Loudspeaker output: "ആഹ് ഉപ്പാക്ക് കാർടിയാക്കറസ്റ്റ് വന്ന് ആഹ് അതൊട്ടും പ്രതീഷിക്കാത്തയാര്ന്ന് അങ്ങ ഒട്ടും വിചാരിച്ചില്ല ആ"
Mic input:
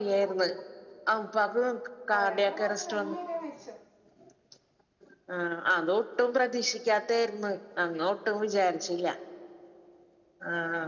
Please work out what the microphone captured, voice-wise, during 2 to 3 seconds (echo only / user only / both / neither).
both